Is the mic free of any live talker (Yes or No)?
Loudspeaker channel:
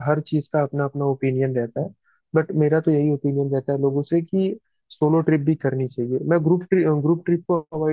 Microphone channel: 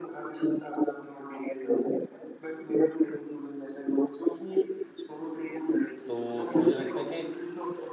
No